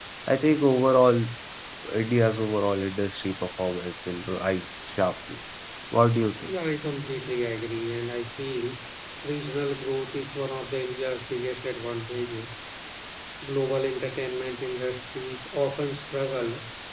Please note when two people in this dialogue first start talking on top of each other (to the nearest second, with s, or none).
none